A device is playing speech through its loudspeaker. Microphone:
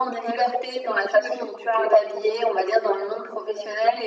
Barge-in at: none

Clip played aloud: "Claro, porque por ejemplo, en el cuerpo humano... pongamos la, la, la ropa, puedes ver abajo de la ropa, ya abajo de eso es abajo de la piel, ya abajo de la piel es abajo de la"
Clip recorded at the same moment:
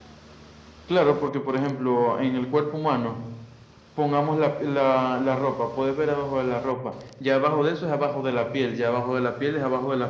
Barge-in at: none

